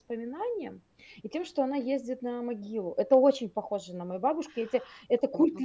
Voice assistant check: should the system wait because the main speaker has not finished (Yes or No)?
No